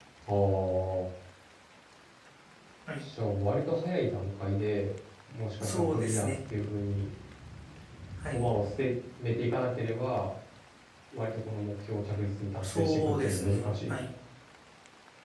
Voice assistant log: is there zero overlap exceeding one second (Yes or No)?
No